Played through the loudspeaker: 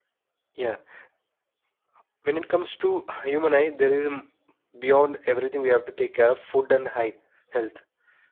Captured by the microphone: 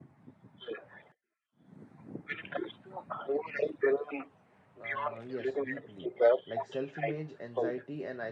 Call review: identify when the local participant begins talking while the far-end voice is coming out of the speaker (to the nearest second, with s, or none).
5 s